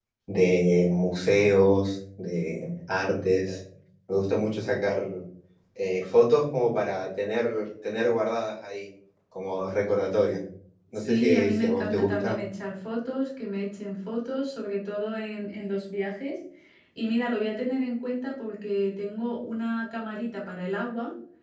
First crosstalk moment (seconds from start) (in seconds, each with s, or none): 11.0 s